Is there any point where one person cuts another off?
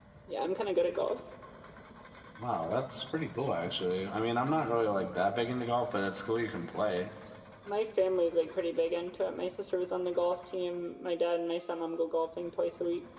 No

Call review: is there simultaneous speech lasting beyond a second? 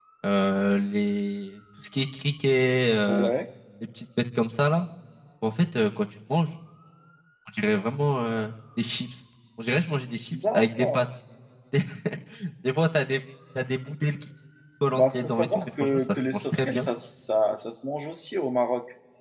Yes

